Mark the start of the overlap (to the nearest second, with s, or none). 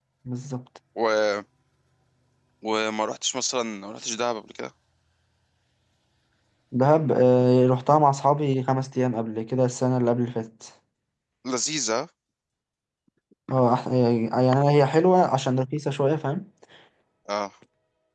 none